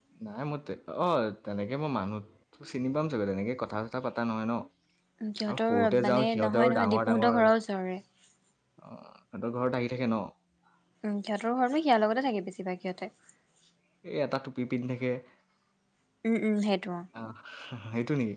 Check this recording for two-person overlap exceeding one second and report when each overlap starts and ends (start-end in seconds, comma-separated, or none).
5.5-7.5